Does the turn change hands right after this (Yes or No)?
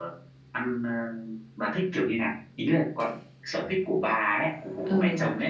Yes